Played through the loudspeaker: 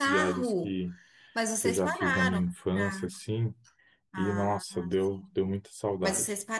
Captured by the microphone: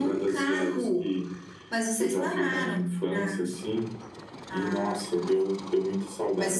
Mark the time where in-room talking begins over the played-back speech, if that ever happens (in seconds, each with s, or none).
none